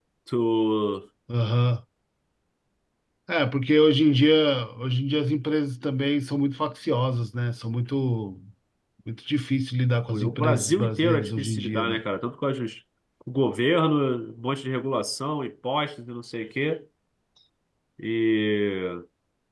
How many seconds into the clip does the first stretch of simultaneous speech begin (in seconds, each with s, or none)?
10.1 s